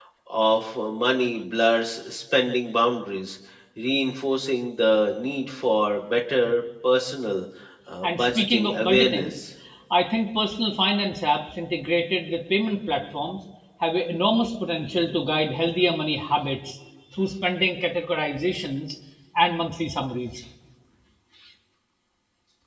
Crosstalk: present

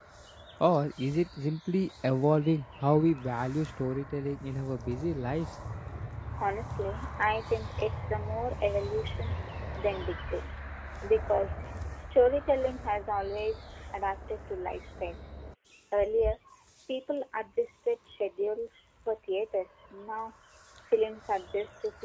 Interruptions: none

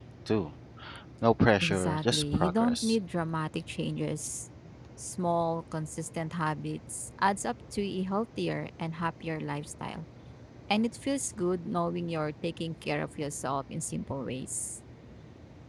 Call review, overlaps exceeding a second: present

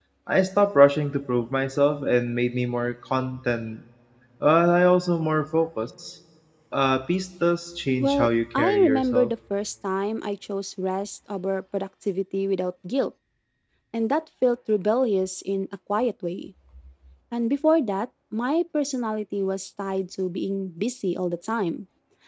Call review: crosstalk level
present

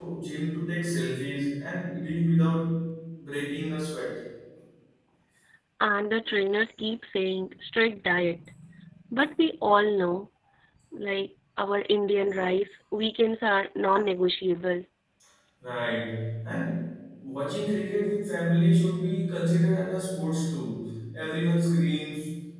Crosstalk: none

